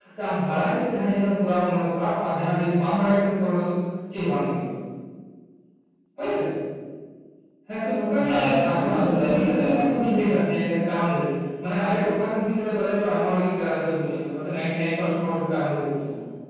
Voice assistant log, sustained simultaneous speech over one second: present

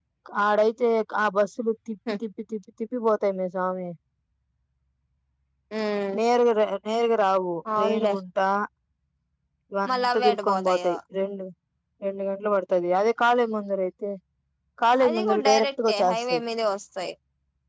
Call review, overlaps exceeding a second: present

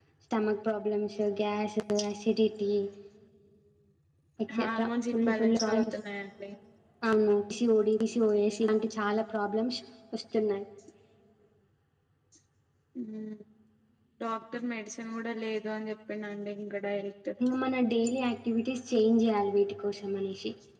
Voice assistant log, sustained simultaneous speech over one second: present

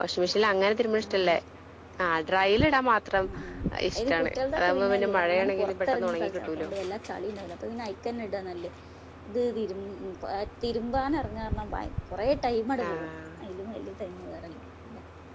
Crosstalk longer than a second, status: present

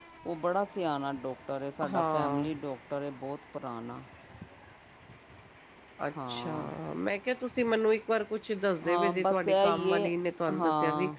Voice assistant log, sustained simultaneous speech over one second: present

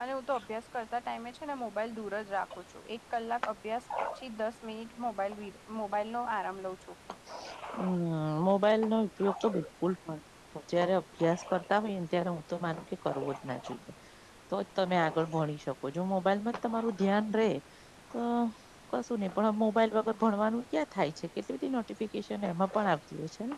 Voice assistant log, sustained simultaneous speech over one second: none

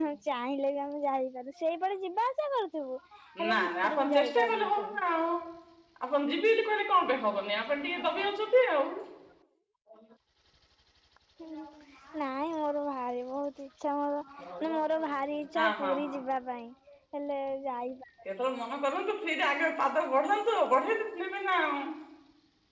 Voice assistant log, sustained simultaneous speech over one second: present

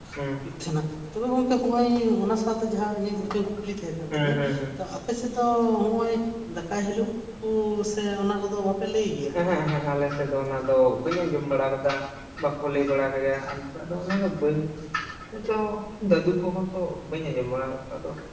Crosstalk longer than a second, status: none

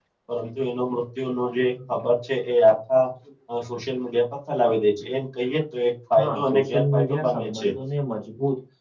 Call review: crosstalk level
present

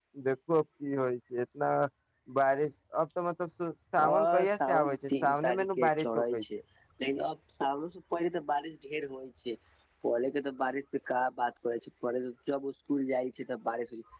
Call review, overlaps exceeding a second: present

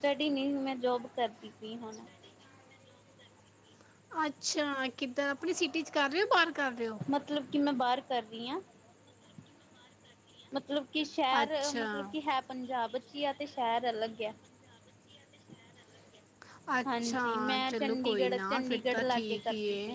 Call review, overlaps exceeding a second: present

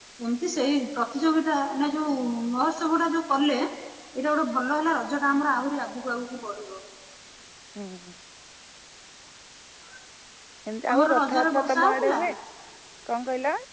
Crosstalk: present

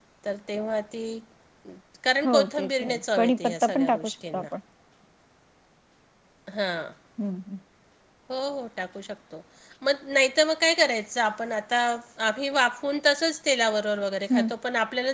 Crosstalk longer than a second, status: present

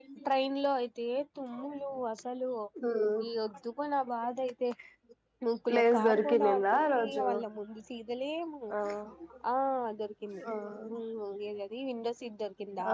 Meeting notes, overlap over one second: present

